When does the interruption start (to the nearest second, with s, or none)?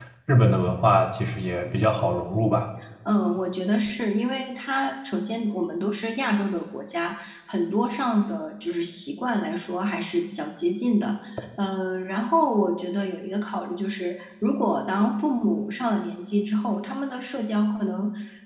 none